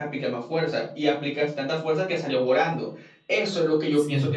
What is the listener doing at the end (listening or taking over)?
listening